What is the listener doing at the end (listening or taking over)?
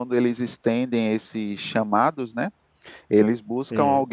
listening